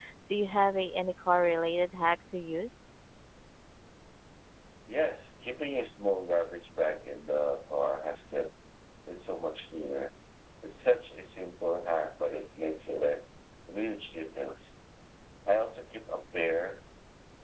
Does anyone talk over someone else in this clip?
No

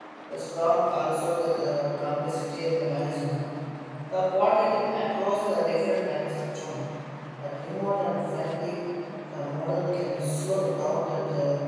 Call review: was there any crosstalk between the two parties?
No

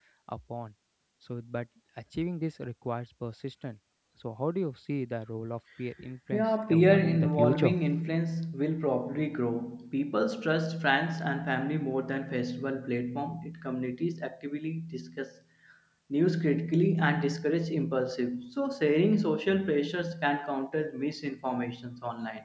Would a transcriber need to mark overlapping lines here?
Yes, from 6.3 s

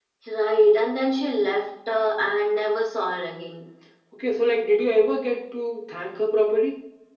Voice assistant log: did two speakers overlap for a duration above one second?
No

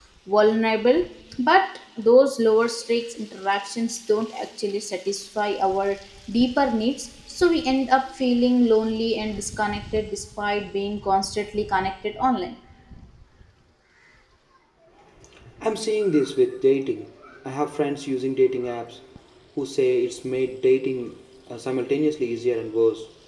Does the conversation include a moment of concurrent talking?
No

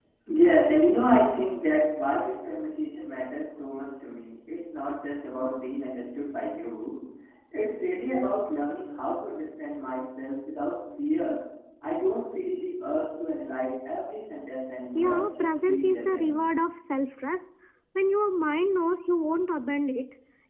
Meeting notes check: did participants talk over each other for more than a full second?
Yes, from 15.0 s

